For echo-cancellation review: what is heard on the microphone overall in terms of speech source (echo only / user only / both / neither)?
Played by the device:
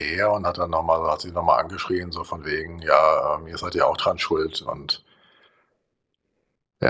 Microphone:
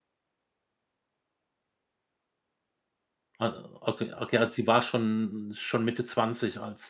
user only